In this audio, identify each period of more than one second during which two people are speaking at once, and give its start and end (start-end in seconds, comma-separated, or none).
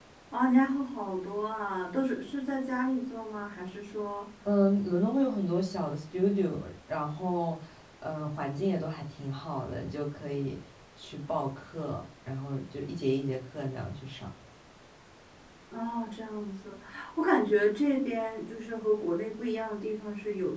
none